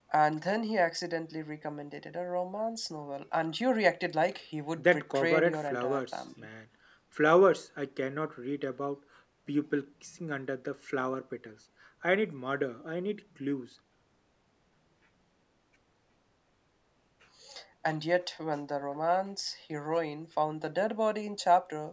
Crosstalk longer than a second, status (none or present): present